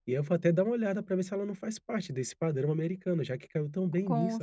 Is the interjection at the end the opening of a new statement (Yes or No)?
Yes